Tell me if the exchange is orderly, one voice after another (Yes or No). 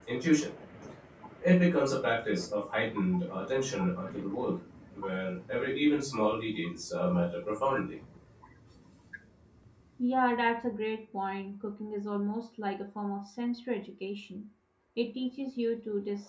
Yes